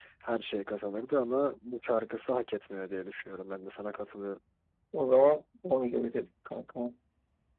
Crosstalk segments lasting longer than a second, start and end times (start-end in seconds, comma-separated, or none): none